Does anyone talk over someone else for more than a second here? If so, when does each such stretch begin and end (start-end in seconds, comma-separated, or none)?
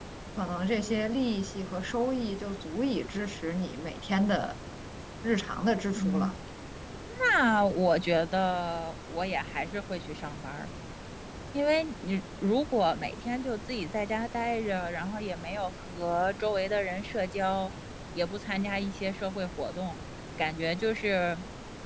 none